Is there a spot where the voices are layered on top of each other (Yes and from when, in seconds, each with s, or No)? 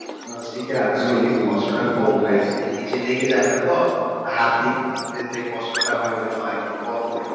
Yes, from 1.0 s